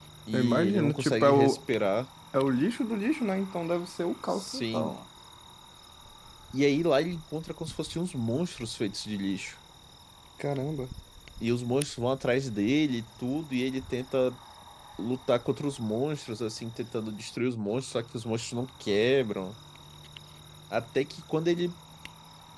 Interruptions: present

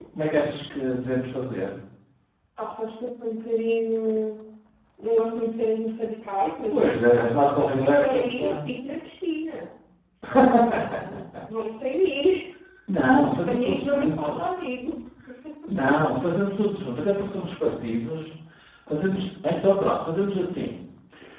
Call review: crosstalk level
present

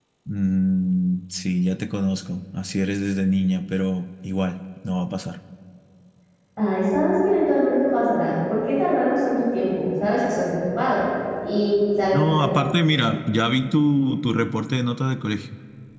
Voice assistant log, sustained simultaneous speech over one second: none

